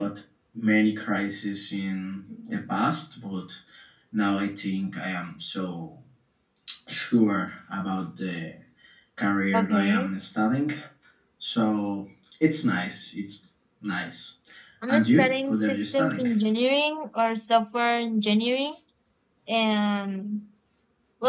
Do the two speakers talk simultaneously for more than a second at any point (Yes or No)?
Yes